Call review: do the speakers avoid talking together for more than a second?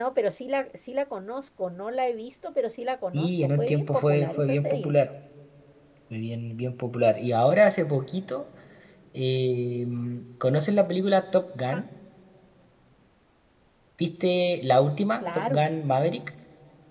No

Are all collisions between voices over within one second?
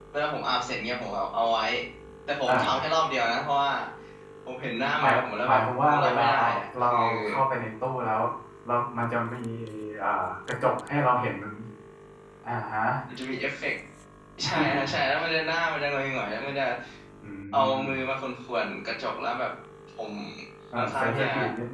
No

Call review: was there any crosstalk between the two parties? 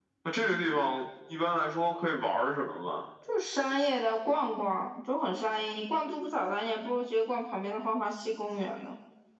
No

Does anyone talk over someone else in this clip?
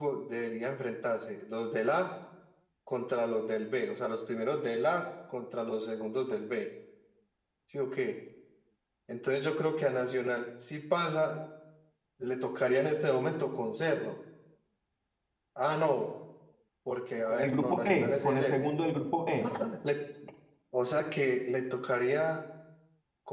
Yes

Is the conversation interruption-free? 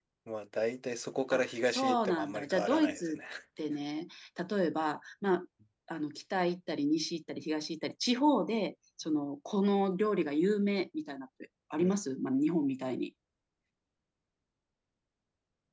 No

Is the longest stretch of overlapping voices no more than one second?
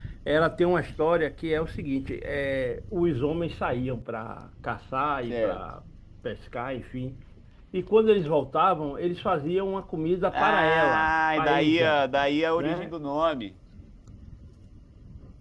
No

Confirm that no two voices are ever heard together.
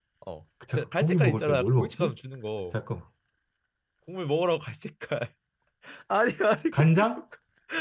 No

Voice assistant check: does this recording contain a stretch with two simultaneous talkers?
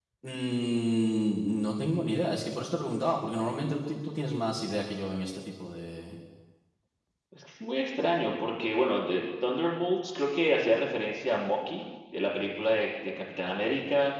No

